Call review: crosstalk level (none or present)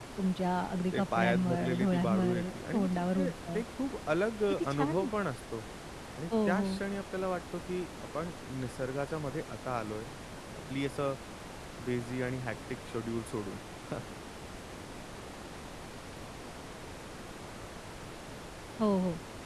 present